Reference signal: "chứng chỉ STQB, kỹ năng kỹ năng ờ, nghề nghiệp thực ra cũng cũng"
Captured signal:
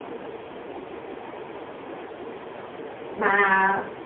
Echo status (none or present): none